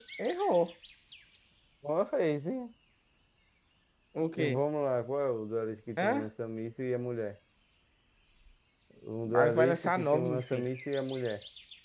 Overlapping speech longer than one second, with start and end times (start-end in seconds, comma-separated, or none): 9.3-10.6